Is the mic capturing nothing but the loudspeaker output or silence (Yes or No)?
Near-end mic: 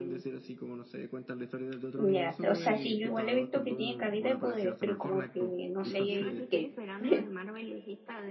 No